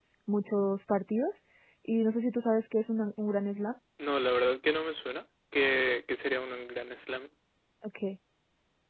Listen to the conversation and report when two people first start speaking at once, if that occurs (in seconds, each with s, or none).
none